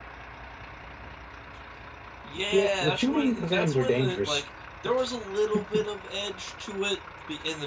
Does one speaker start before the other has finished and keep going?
Yes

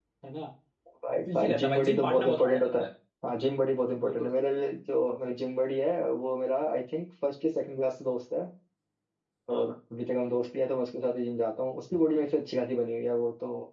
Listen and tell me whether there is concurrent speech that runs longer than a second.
Yes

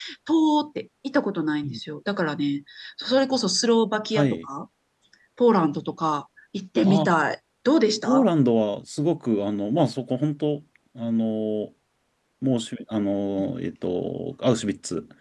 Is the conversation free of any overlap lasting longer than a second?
Yes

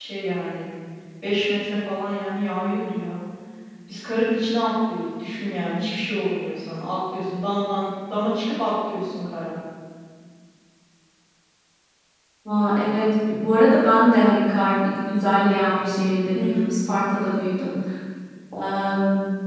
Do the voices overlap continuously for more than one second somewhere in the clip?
No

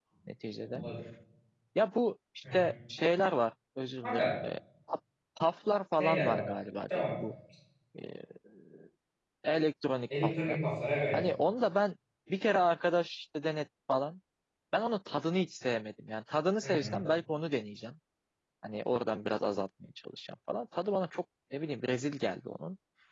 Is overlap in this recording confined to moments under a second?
Yes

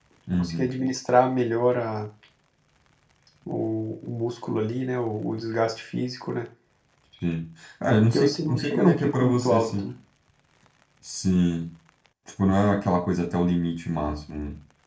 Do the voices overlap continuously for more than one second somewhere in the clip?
Yes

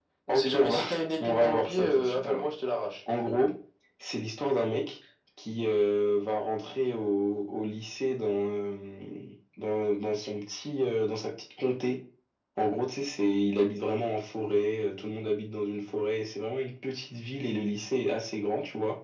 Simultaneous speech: Yes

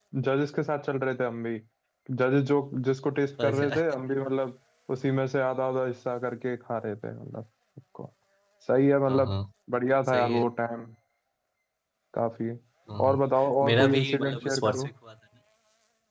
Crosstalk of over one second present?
Yes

